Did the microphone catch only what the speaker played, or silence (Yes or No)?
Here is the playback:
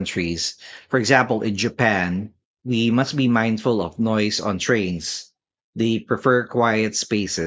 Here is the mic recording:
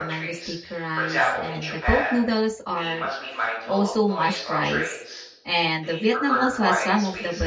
No